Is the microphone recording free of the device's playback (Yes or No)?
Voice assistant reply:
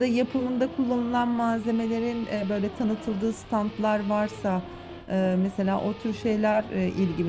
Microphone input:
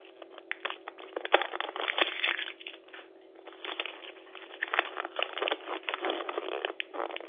Yes